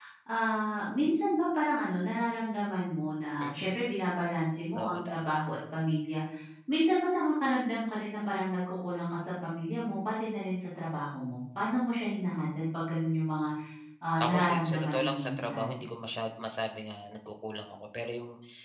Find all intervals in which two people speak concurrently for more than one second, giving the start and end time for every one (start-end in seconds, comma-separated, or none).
14.2-15.8